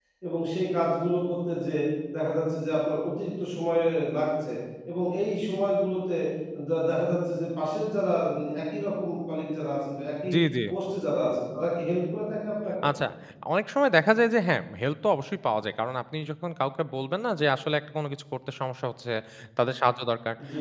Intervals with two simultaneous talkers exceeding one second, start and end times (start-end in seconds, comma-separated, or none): none